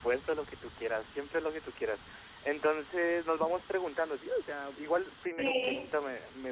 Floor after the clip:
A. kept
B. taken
A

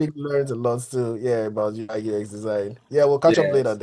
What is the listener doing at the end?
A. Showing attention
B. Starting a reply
B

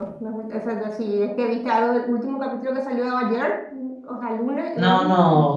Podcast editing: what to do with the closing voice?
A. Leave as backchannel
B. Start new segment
B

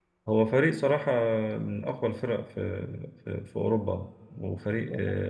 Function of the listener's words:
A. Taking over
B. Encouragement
B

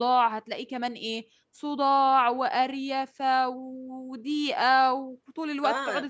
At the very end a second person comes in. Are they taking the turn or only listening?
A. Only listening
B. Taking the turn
B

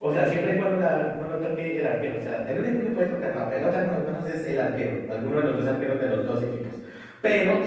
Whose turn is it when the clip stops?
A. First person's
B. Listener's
A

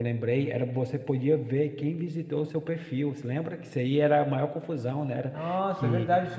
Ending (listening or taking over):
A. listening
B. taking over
B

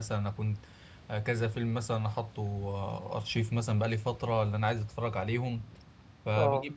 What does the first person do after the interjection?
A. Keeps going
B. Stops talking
A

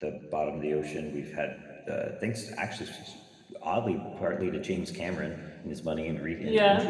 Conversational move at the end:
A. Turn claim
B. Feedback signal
A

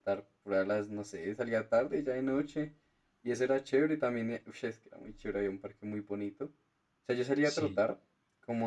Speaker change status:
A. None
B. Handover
A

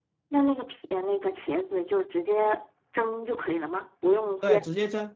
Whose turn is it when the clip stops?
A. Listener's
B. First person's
A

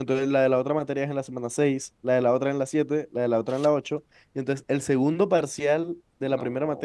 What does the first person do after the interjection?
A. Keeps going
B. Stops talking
A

